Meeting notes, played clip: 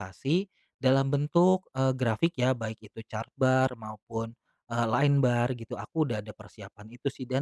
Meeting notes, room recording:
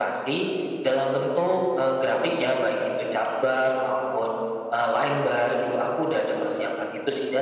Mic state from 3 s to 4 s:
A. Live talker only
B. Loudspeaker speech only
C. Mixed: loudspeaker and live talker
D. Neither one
B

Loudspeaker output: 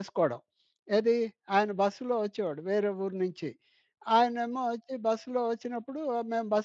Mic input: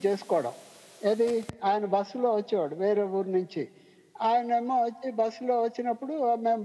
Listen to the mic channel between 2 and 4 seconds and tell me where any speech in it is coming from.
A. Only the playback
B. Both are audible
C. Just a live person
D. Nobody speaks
A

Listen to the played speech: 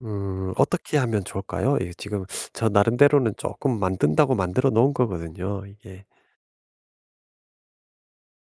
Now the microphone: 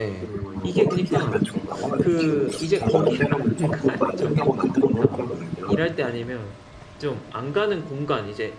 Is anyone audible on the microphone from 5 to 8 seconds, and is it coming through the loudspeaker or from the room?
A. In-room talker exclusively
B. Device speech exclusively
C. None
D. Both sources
D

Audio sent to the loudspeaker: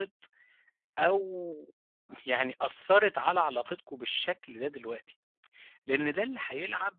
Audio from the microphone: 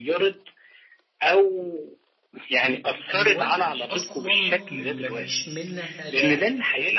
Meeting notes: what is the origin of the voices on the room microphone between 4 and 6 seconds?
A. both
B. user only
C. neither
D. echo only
A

